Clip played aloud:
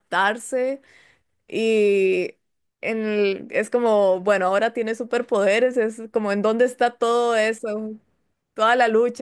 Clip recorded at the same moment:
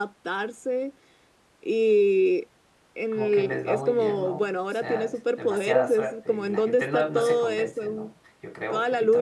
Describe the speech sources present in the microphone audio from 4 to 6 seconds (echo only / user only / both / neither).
both